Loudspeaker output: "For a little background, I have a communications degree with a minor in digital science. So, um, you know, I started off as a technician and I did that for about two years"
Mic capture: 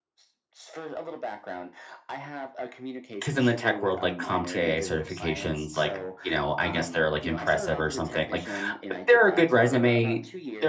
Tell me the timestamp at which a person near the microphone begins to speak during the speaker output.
3.2 s

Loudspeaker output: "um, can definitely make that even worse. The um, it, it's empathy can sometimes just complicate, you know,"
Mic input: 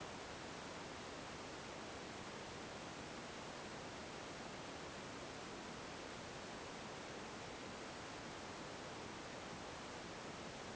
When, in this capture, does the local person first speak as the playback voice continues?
none

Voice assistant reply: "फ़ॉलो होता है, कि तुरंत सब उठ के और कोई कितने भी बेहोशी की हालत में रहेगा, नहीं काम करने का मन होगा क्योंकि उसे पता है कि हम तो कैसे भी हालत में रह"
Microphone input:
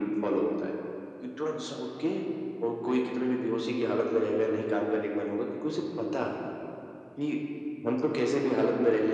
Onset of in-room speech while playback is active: none

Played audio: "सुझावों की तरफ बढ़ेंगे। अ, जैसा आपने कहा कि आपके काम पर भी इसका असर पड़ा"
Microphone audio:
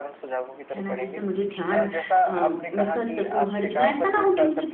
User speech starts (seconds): 0.7 s

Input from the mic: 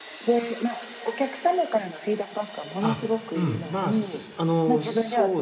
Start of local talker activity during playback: 2.8 s

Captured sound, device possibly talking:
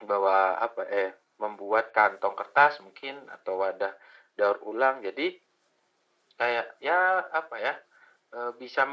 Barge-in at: none

